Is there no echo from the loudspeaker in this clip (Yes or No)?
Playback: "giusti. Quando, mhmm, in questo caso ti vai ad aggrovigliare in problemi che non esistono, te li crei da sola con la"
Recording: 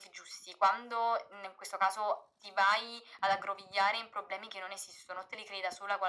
No